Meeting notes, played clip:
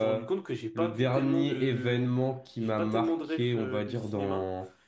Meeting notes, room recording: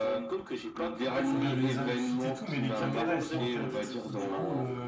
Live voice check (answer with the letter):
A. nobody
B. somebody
B